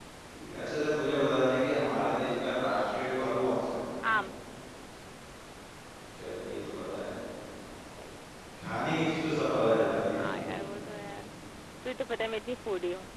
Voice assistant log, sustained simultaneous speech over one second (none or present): none